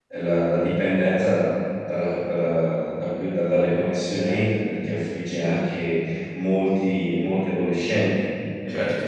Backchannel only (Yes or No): No